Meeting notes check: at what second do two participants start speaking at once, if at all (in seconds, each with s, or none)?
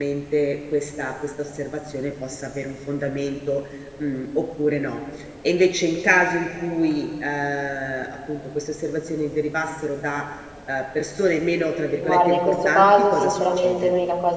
12.0 s